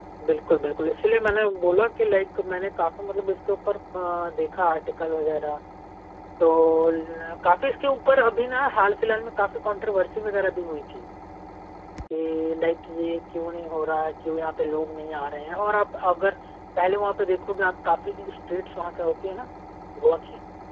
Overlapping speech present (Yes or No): No